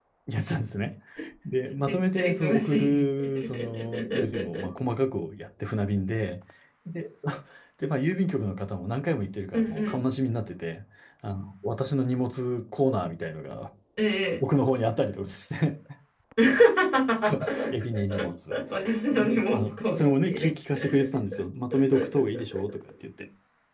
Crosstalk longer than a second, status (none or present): present